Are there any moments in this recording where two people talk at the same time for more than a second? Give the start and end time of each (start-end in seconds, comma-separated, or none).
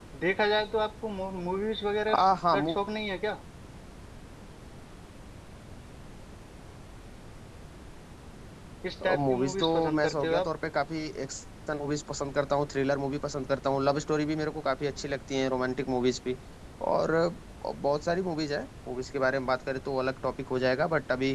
9.2-10.5